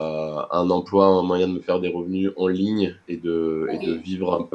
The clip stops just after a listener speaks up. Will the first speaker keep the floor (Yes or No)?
Yes